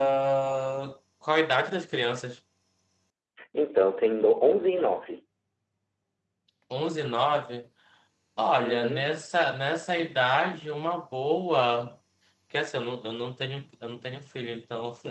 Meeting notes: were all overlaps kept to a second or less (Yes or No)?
Yes